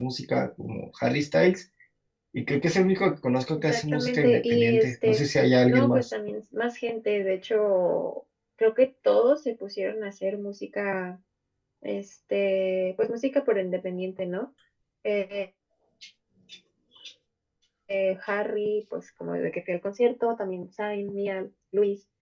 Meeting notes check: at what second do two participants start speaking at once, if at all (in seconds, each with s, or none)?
3.7 s